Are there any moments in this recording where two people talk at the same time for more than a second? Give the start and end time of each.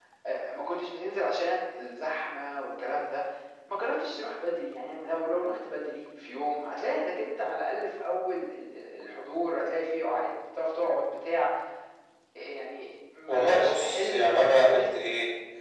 13.3-14.9

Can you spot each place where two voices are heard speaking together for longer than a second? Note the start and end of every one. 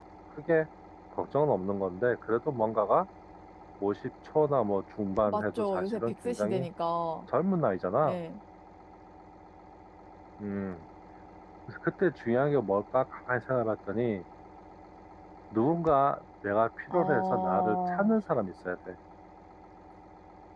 5.3-6.6, 16.9-18.2

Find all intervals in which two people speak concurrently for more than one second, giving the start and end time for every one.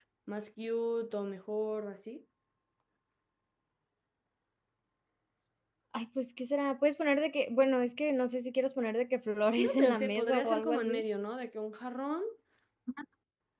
9.6-11.0

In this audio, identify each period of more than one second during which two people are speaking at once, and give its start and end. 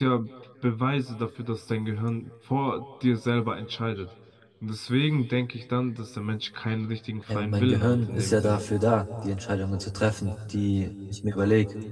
7.3-8.7

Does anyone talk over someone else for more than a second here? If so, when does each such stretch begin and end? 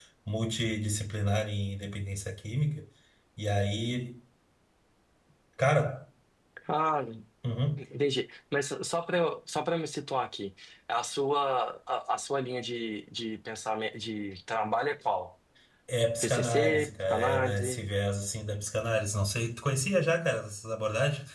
16.2-17.8

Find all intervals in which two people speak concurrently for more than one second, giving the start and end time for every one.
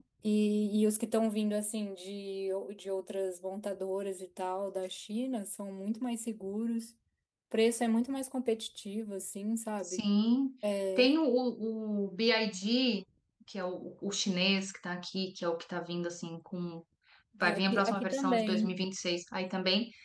17.4-18.6

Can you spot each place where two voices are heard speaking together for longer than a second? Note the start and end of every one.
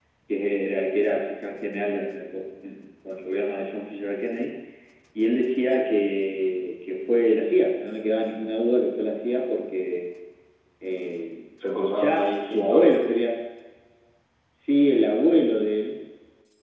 11.9-13.3

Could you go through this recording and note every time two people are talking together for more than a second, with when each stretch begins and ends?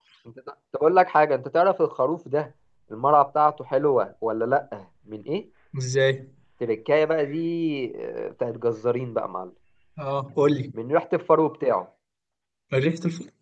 none

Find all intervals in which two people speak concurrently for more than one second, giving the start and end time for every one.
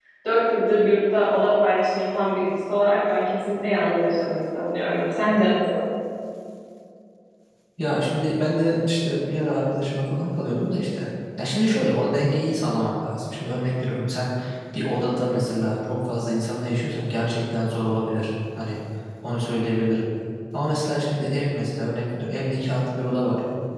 none

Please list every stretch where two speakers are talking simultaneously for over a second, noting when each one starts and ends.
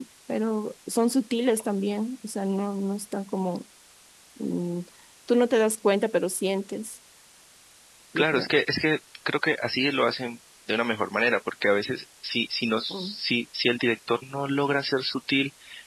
none

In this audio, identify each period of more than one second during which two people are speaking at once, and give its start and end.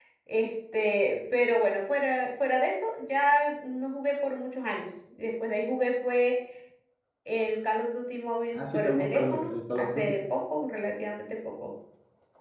8.5-10.2

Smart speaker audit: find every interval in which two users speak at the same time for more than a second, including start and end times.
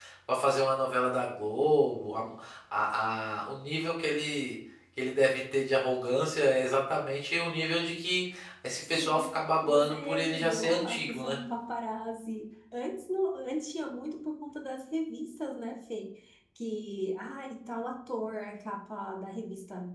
9.6-11.4

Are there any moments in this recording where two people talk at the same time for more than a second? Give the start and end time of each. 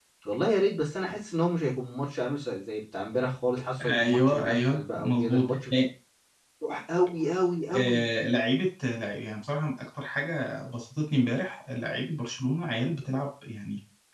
3.8-5.5

